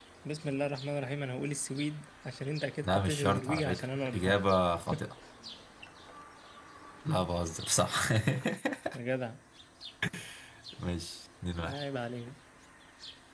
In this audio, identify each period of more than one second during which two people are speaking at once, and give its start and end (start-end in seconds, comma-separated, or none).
2.8-4.4